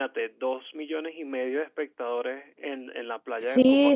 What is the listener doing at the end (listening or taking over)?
taking over